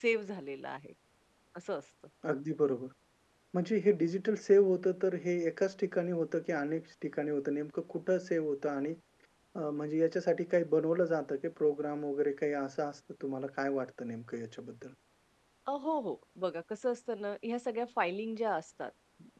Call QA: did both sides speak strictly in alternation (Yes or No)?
Yes